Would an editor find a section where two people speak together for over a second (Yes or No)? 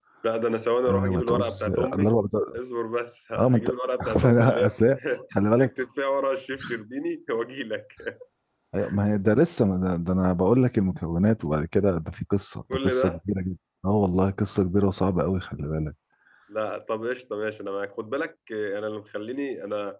Yes